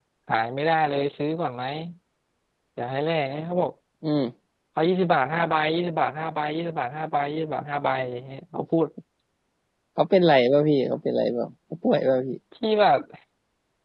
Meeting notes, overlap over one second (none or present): none